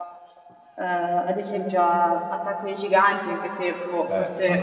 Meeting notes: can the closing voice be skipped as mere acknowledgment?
No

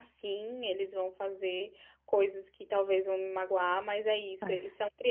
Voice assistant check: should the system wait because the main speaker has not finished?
Yes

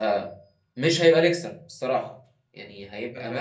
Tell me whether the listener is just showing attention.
Yes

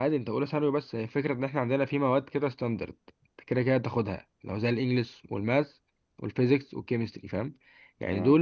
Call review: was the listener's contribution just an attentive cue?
Yes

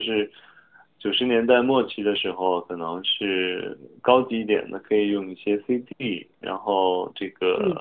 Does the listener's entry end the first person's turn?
No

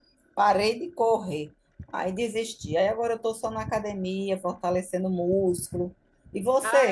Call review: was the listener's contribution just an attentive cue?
No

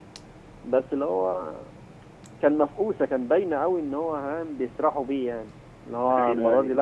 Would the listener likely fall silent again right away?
Yes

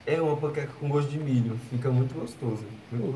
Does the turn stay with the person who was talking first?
No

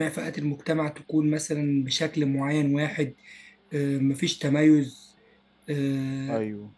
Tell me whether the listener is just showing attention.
Yes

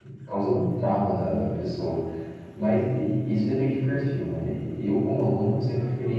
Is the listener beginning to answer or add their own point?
No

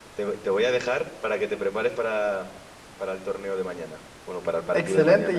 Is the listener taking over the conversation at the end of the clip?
Yes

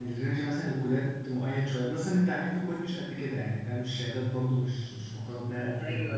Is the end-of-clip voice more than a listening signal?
Yes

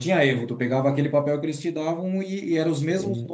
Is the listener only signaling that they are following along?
Yes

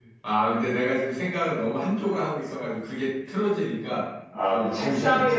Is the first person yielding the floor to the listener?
Yes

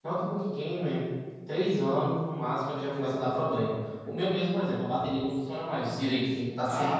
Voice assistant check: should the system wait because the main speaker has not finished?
No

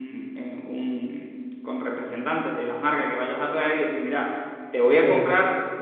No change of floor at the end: Yes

